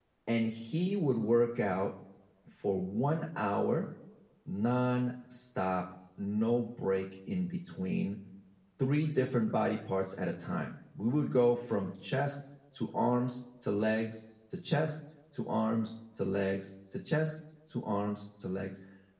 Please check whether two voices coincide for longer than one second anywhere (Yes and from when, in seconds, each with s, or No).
No